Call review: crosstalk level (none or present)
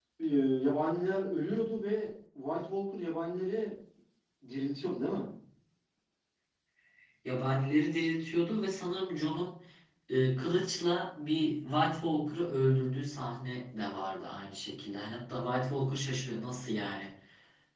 none